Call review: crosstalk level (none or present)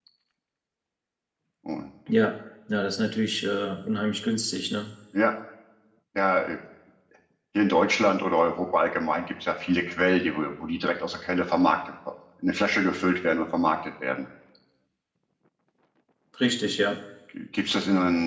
none